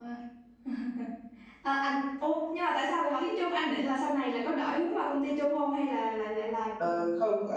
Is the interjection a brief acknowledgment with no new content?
No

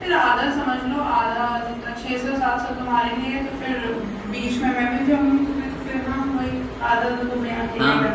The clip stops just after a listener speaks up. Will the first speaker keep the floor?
No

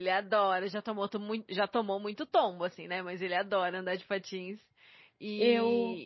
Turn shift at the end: No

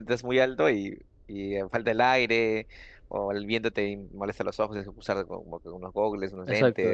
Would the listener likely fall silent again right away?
No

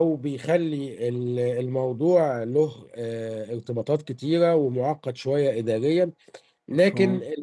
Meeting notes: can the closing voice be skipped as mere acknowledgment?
Yes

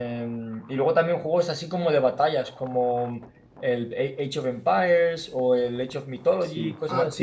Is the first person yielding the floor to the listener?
Yes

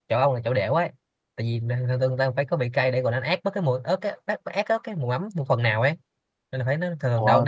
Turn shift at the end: No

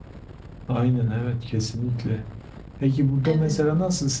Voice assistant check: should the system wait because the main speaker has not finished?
Yes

